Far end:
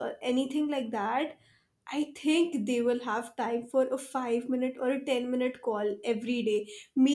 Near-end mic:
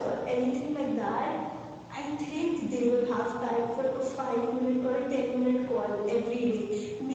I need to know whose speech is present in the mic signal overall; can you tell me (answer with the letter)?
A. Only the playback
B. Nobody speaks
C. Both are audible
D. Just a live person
A